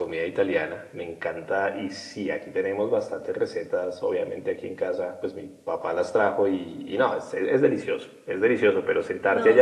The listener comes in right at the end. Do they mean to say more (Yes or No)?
No